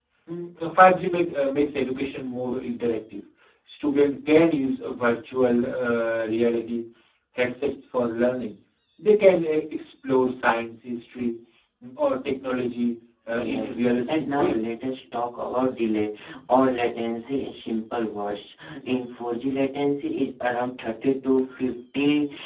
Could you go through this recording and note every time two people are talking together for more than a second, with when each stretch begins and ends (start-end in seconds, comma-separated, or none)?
13.3-14.6